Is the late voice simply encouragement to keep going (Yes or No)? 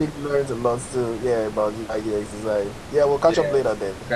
No